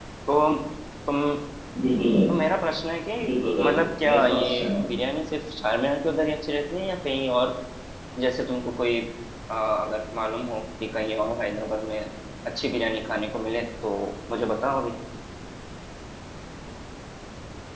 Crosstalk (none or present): present